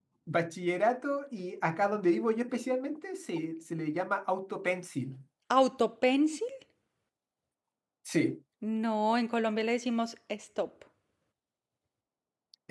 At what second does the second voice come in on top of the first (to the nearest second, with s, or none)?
none